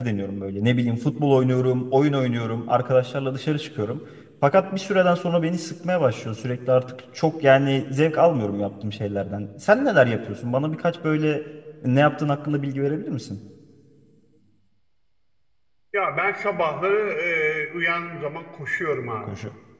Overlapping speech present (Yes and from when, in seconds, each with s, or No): No